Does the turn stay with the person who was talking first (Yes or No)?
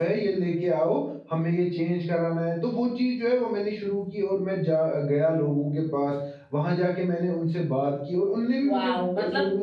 No